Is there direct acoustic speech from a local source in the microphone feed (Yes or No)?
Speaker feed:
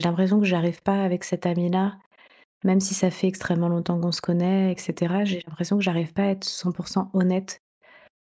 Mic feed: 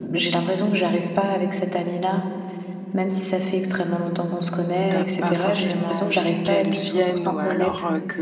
Yes